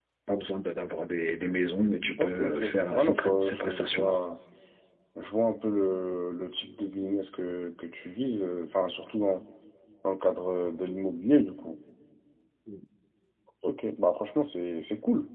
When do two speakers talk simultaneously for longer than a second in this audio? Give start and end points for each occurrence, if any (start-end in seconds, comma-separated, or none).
2.2-4.2